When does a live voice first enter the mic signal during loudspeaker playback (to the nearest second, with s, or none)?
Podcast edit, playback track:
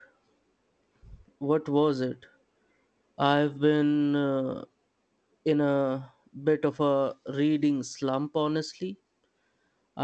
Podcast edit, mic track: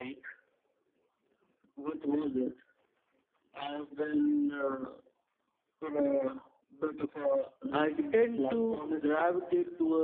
8 s